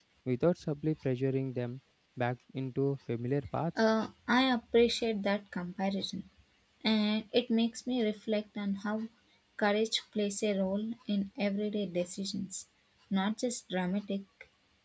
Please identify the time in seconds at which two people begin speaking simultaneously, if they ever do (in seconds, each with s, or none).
none